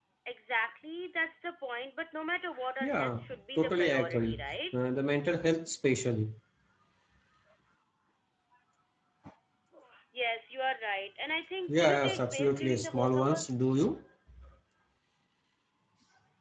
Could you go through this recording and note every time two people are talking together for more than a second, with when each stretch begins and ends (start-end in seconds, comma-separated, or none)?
2.8-4.6, 11.7-13.4